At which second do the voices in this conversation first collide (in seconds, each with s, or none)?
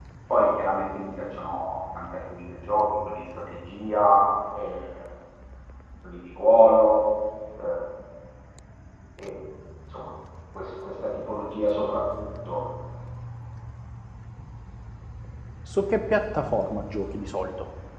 none